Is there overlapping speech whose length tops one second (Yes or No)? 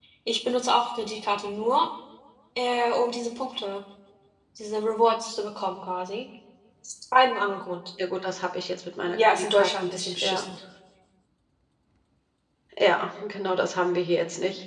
Yes